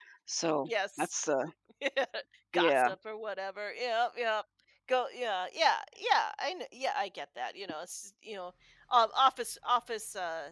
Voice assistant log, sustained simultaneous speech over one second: none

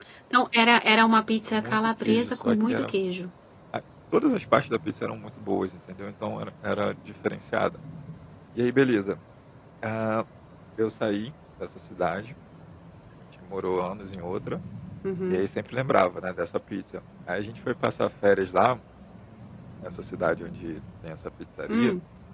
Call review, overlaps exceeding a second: present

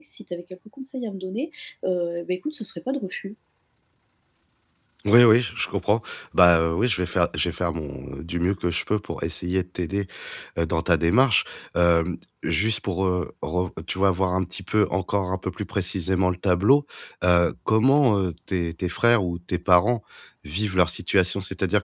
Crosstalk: none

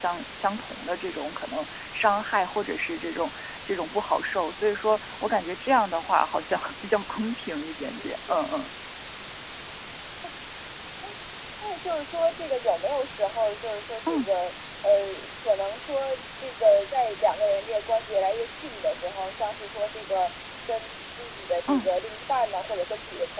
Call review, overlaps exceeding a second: none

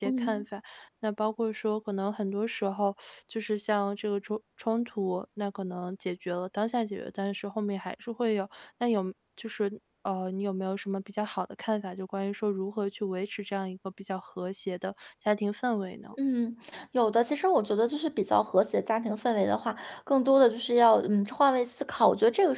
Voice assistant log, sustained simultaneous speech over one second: none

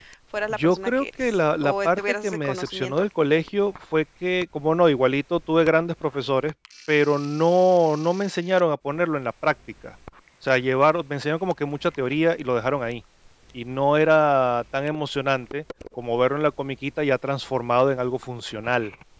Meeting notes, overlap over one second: present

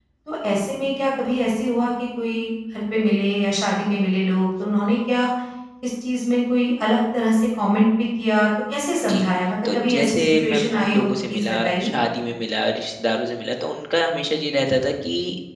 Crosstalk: present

